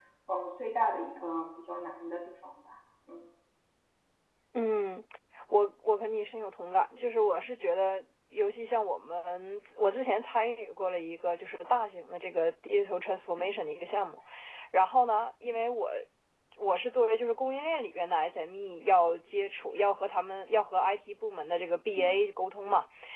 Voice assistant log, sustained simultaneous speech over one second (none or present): none